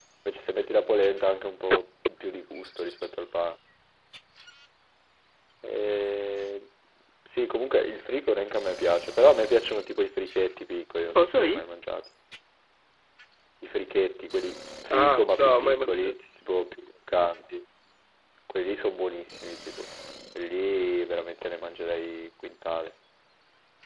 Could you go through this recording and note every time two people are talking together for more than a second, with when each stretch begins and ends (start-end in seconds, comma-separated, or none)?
14.9-16.2